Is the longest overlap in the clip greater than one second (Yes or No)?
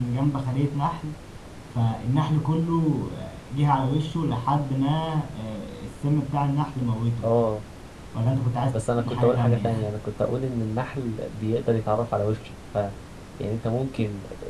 Yes